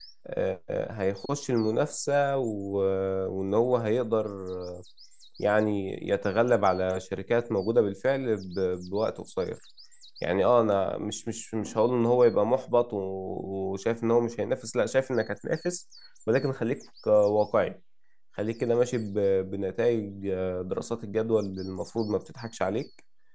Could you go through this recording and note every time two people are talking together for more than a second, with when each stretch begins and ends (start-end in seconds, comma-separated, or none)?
none